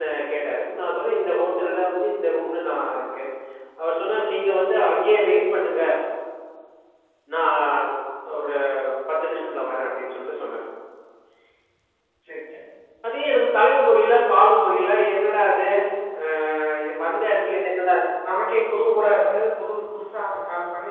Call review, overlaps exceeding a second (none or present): none